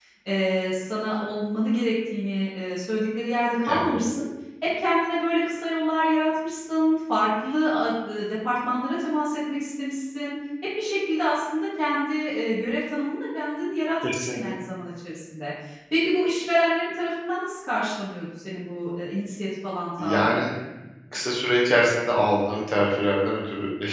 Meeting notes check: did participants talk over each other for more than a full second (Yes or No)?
No